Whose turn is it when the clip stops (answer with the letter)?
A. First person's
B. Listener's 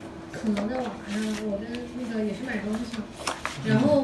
A